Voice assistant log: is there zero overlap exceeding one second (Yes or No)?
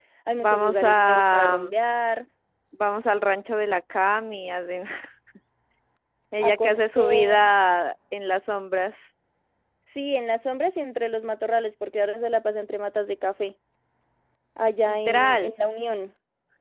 No